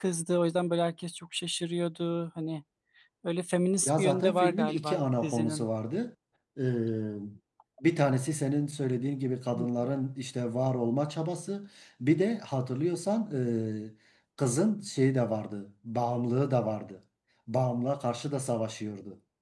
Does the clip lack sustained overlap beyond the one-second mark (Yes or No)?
No